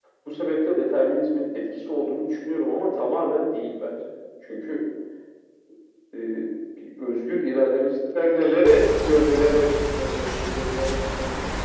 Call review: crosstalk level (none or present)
none